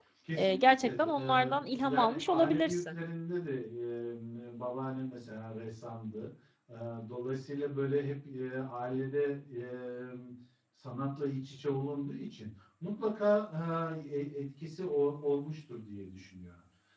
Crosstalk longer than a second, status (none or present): present